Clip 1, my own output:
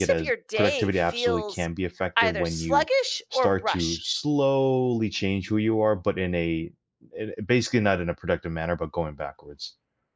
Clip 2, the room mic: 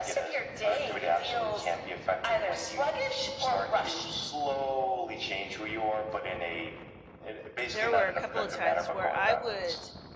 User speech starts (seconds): 8 s

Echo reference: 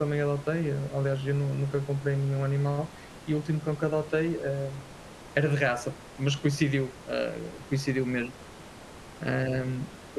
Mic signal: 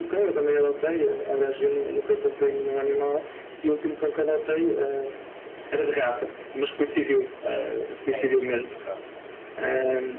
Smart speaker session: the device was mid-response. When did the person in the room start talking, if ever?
8 s

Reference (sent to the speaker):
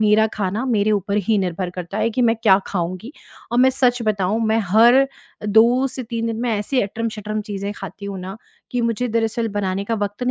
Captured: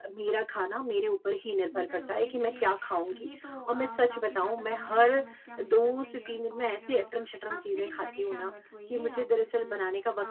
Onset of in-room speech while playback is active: 2 s

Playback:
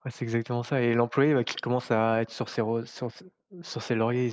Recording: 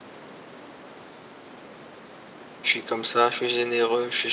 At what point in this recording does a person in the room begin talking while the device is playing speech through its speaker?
3 s

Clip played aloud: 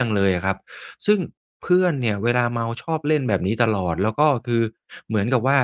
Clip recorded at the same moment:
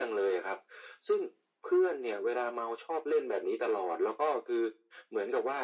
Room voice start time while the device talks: none

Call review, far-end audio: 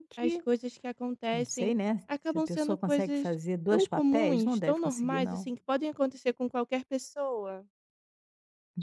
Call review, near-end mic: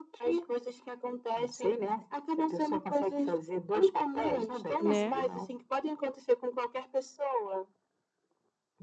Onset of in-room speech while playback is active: 5 s

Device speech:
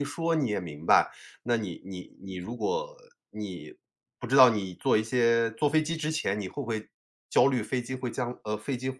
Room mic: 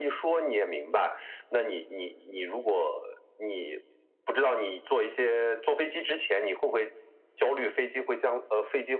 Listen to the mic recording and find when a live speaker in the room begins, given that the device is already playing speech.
none

